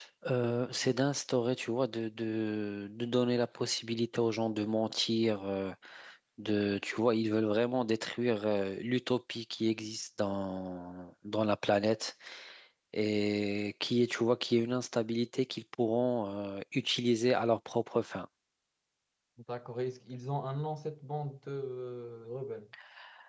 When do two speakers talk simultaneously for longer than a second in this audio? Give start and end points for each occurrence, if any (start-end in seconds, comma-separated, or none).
none